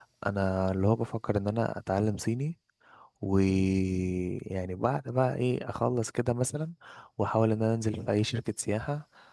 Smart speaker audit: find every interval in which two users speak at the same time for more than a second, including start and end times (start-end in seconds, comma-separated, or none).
none